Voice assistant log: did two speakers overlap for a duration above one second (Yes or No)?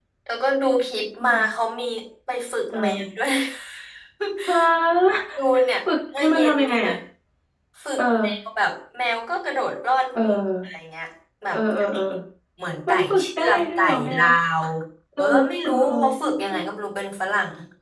Yes